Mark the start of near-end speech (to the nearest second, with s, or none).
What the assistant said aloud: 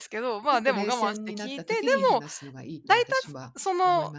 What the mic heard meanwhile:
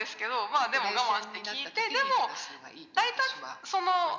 none